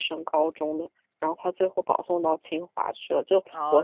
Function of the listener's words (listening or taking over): taking over